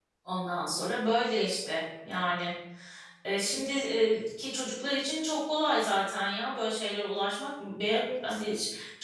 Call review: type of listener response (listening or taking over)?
listening